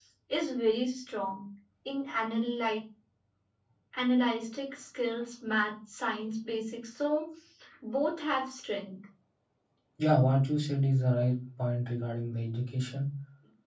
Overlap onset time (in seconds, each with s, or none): none